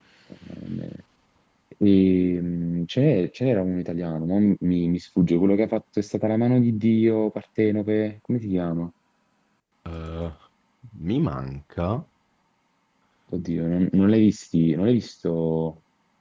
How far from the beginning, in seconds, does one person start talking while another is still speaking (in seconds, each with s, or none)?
none